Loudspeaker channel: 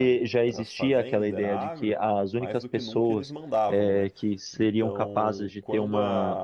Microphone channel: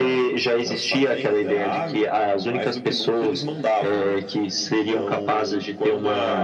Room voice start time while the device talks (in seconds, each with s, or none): none